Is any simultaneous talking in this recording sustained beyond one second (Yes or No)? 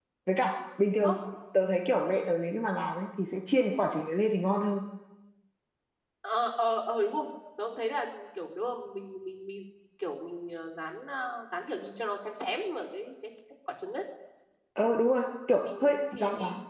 No